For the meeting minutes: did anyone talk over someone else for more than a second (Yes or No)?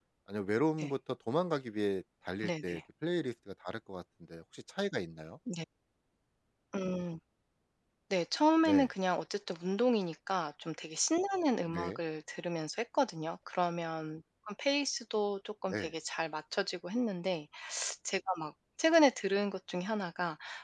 No